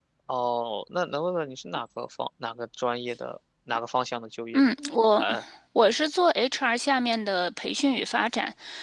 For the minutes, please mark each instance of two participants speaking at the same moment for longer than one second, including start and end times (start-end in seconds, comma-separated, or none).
none